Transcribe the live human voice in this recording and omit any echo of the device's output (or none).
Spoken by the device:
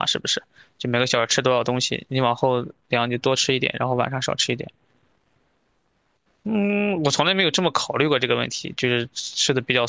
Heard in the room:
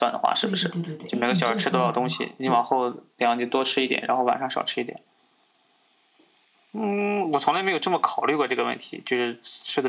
对对对对对，哎，你这个说法很好，对